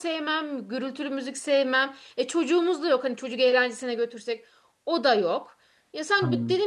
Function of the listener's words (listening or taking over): listening